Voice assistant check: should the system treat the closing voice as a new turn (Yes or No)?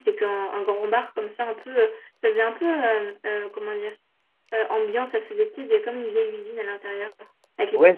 Yes